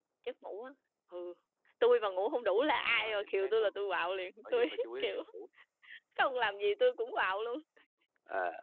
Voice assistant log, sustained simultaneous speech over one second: present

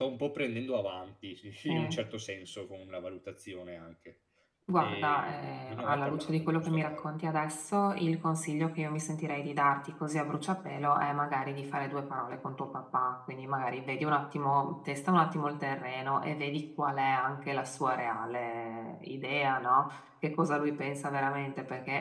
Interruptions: present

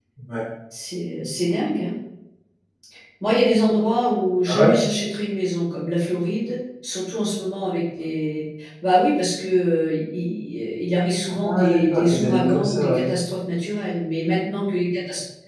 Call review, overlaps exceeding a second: present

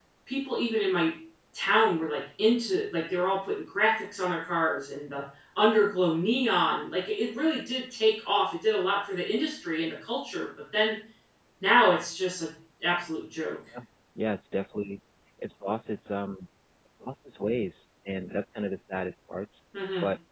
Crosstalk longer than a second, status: none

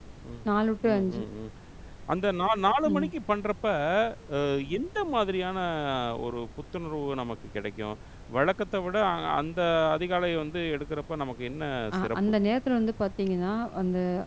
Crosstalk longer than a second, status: none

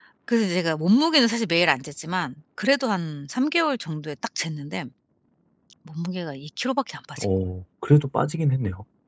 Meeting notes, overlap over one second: none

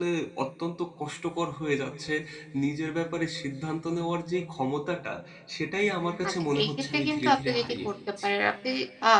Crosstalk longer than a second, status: present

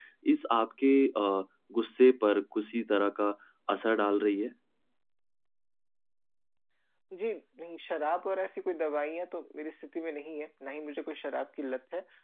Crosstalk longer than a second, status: none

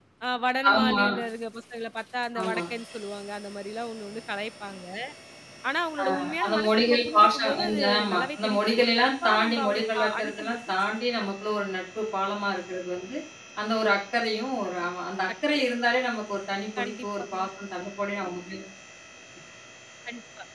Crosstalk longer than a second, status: present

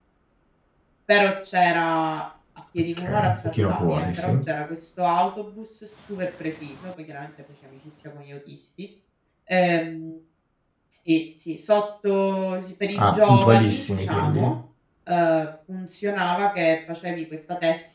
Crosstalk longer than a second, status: present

